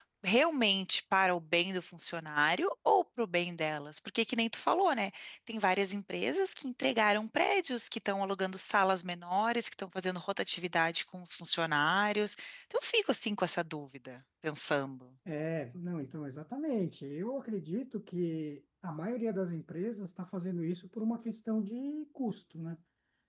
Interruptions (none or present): none